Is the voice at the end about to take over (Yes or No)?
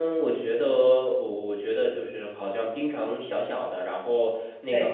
No